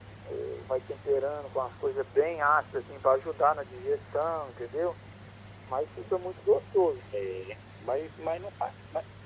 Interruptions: none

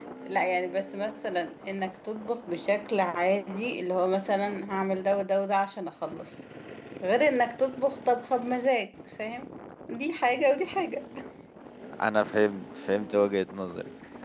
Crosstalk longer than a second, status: none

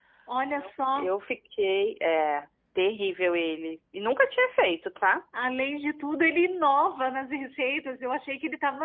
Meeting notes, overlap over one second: none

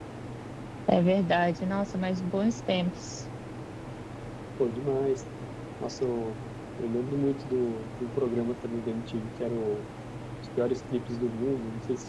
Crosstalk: none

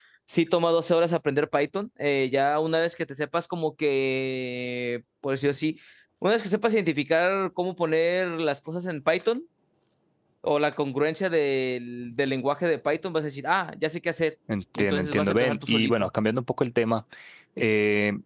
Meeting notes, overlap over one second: present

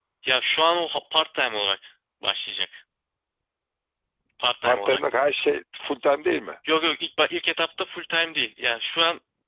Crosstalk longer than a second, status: none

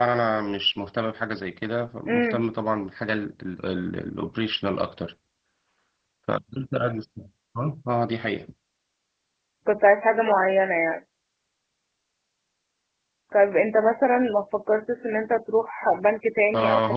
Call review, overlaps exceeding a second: none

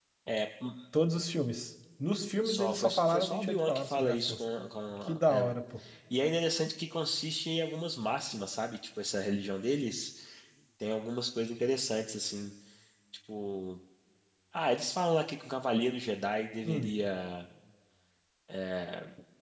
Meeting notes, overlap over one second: present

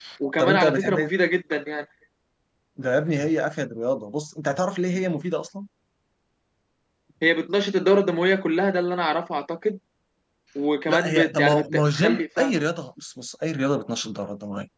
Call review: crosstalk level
present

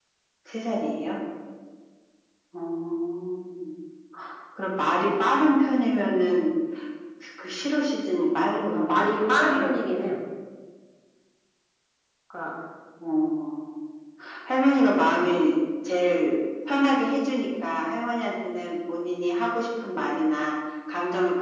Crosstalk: present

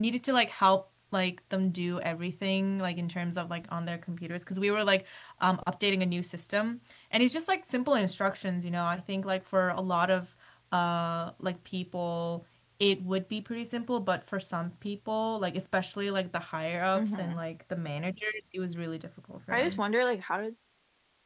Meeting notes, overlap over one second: none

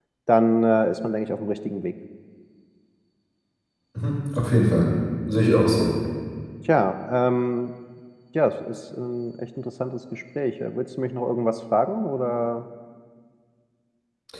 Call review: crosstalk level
none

